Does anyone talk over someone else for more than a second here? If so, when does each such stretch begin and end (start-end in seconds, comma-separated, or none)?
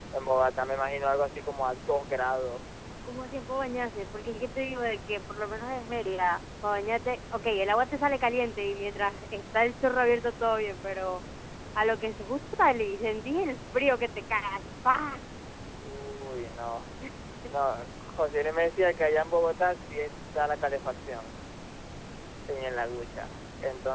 none